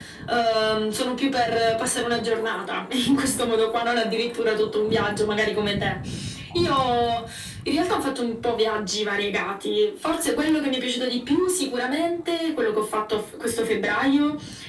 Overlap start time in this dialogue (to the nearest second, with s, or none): none